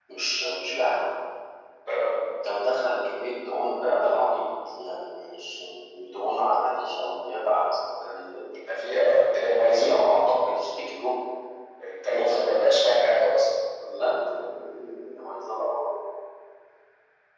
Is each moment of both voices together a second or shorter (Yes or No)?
Yes